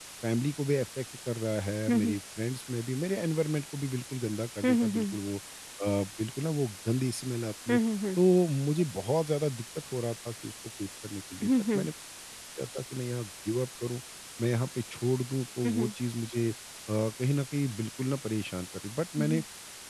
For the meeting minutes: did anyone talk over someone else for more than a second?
No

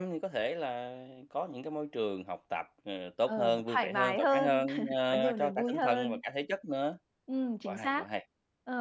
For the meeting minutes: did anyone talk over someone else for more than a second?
Yes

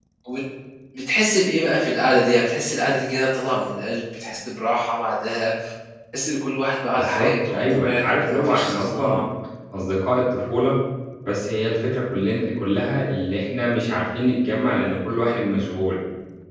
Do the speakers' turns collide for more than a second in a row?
Yes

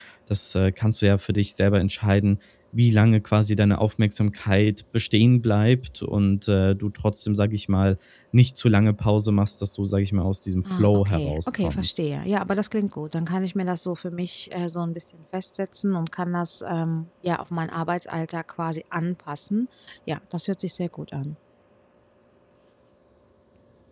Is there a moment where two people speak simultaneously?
Yes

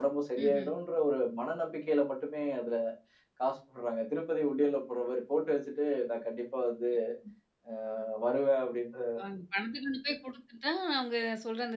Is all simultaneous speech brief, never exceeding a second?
Yes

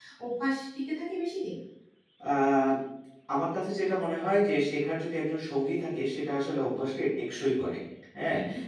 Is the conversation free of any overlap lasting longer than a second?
Yes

